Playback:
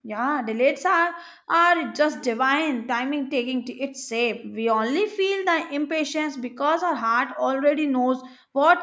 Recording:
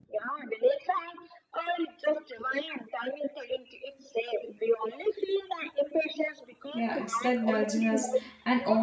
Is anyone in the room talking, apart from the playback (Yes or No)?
Yes